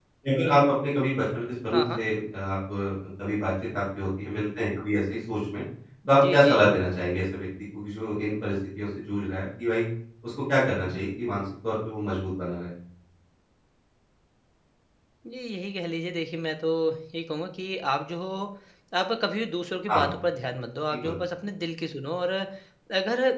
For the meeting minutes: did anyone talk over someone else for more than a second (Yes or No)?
No